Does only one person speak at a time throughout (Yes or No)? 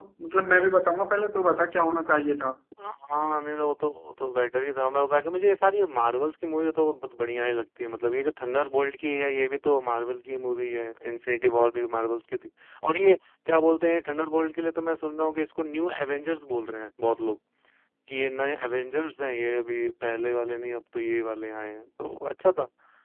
Yes